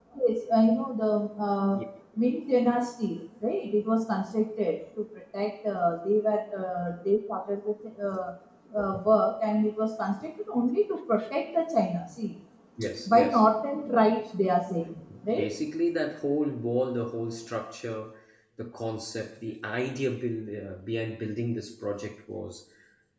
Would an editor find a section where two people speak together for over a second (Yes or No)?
No